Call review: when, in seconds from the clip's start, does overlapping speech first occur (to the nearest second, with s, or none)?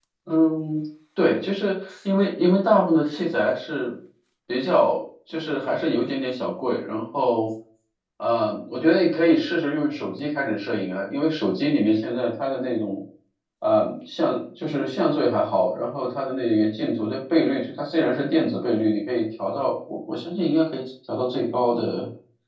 none